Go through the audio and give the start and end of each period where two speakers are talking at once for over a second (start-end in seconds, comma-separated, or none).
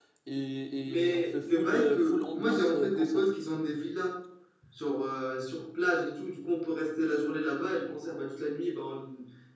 0.8-3.2